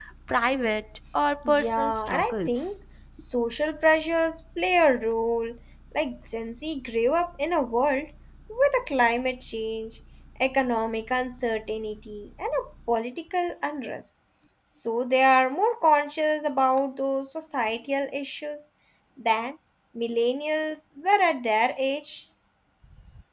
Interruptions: present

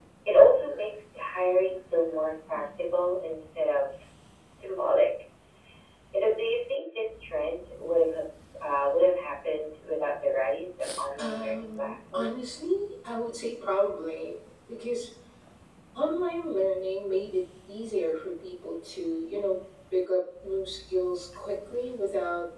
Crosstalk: present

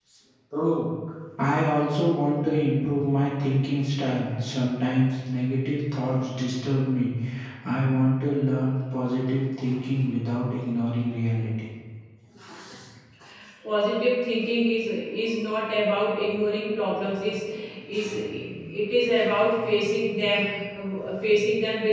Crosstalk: none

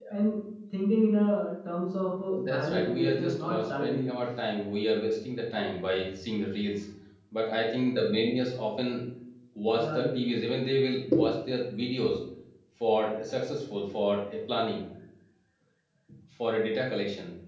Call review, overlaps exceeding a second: present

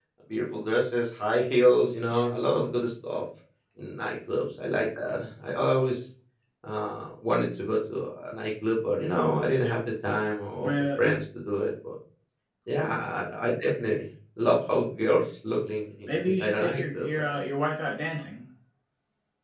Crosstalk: present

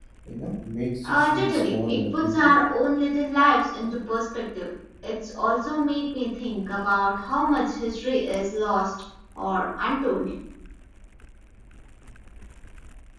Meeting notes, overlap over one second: present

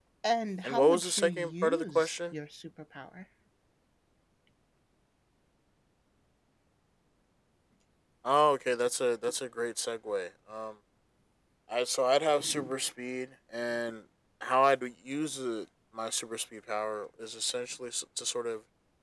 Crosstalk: present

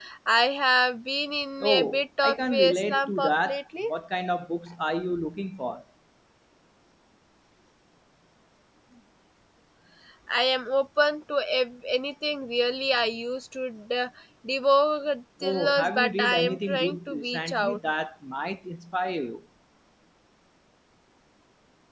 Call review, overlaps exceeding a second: present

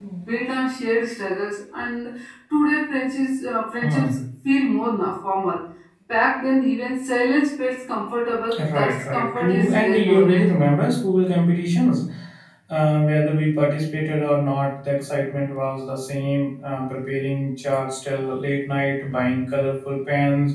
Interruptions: present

